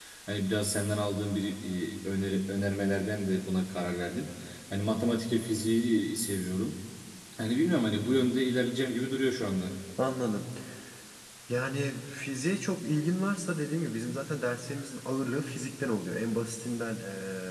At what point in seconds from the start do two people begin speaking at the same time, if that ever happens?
none

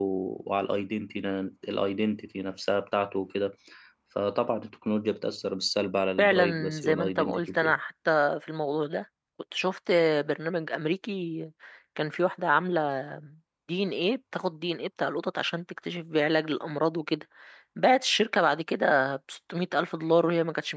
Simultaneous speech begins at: 6.2 s

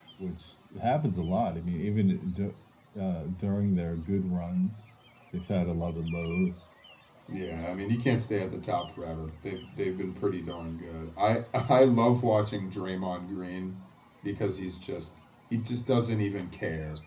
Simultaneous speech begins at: none

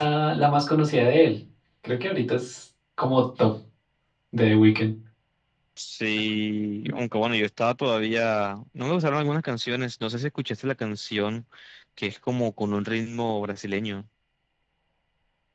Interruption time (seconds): none

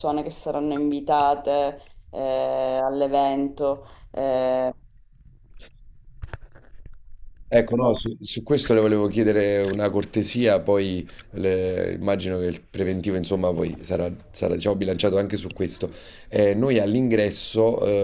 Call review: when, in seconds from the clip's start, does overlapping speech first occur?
none

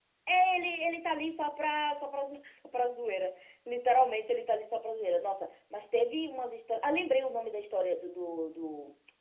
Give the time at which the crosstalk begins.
none

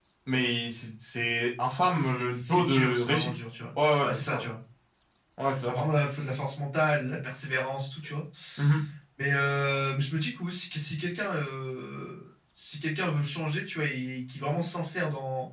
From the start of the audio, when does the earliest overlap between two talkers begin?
1.9 s

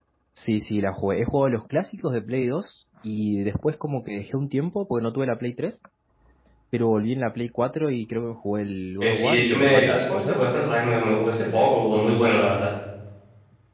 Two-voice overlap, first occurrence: 9.0 s

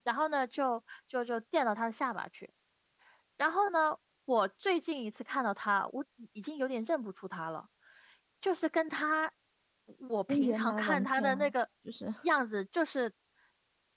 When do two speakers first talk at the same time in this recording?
10.3 s

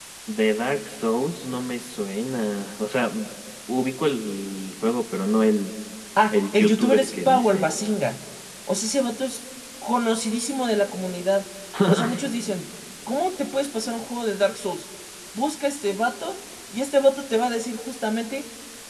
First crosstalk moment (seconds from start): 6.3 s

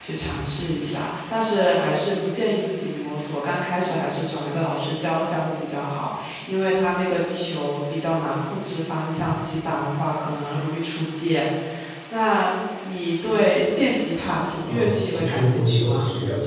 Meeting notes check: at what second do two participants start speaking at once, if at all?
14.7 s

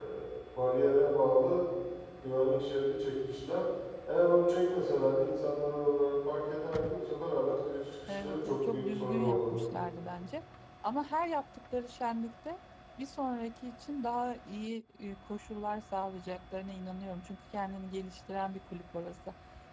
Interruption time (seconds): 8.0 s

